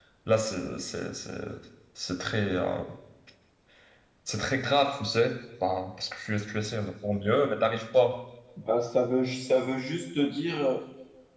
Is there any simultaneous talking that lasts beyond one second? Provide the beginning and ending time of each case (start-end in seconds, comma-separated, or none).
none